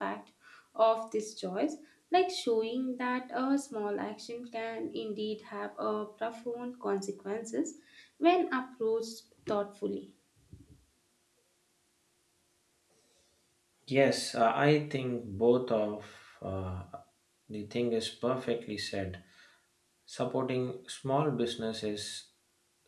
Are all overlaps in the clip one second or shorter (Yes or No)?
Yes